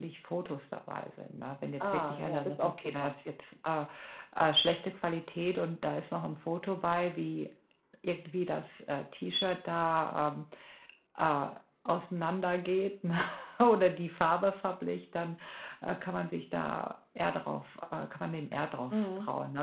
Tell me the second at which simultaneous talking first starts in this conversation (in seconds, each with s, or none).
1.8 s